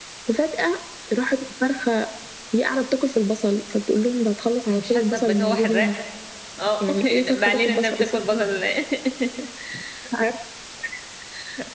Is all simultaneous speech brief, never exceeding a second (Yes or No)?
No